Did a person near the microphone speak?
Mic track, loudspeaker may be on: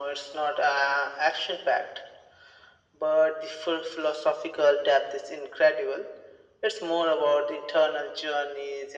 No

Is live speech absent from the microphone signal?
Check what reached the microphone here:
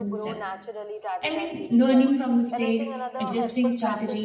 No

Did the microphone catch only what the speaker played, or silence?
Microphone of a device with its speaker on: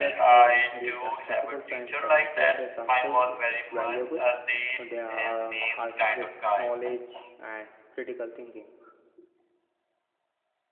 No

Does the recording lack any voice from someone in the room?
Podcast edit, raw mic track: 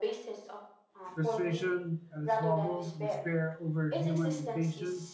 No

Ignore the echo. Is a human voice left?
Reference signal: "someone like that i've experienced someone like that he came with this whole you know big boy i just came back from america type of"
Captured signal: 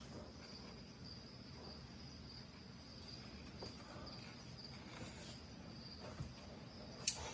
No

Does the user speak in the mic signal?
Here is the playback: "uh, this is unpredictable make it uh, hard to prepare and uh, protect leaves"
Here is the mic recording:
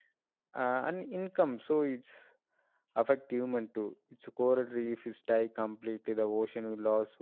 Yes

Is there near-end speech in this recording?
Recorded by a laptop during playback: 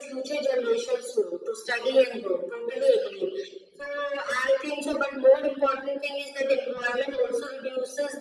No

